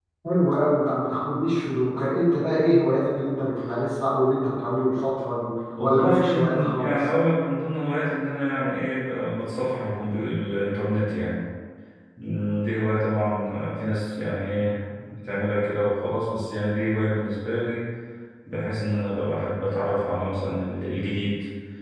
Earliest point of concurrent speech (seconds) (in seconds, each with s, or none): 5.8 s